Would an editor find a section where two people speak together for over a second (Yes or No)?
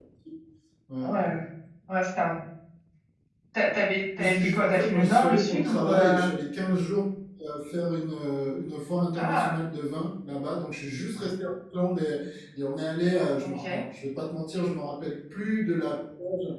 Yes